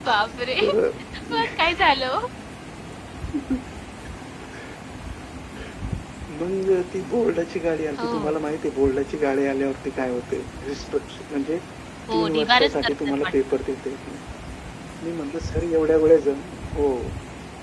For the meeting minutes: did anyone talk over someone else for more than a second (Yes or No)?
Yes